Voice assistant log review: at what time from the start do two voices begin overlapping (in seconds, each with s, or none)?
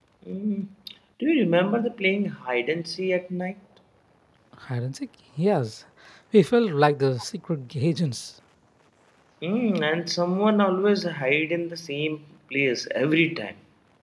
none